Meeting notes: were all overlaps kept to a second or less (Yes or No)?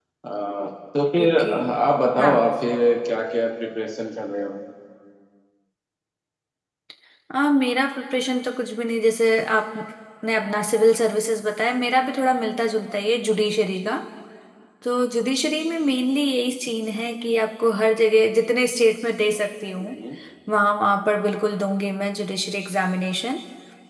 Yes